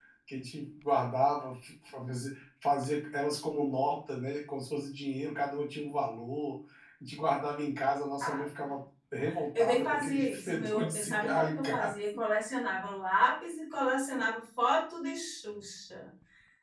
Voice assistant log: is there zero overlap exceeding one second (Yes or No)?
No